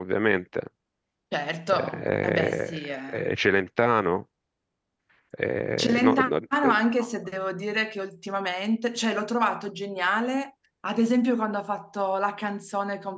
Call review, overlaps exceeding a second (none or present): present